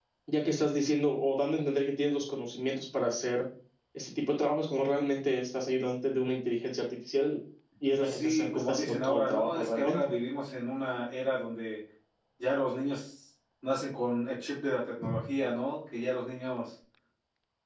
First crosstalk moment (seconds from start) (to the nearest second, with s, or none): 8 s